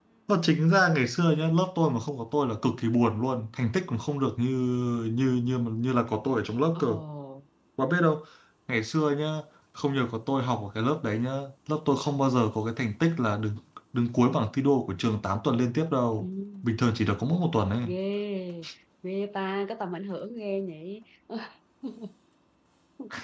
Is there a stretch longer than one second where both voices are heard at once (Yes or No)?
No